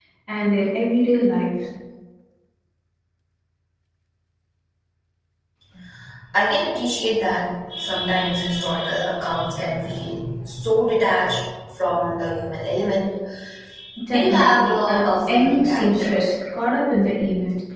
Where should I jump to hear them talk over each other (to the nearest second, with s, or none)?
14 s